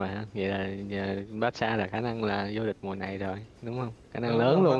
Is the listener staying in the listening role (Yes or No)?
No